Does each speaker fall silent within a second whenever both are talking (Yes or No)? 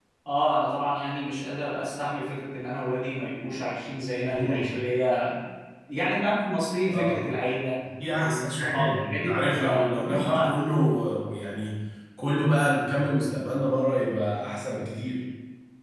No